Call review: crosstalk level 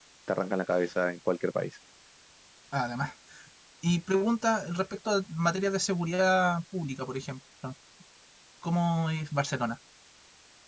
none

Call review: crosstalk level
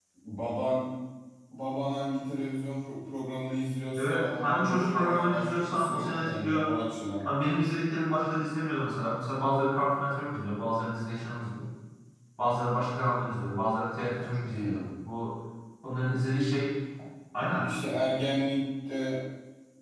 present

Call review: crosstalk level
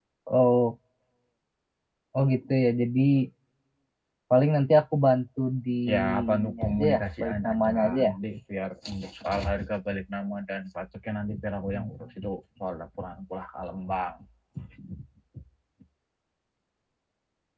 present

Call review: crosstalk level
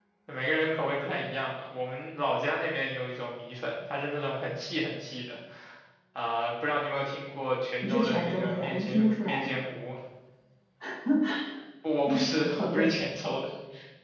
present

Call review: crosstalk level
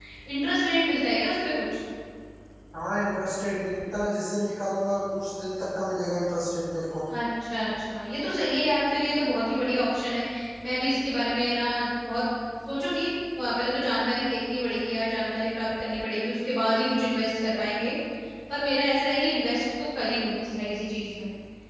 none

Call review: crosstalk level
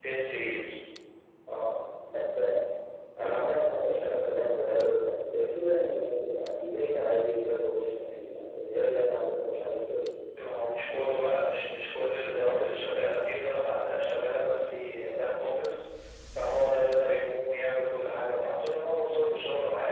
none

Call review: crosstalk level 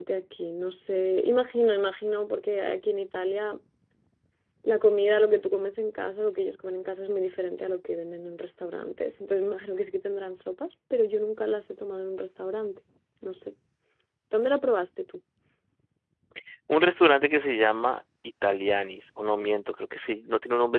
none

